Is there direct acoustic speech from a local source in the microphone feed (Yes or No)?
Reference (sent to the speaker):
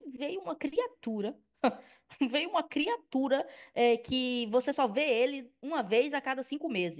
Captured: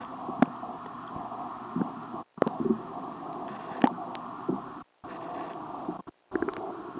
No